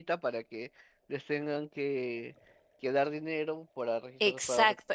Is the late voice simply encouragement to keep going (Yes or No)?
No